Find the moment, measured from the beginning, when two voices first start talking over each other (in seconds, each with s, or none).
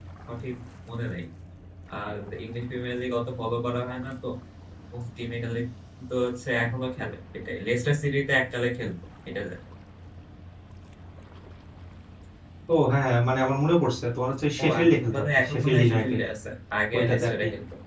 14.6 s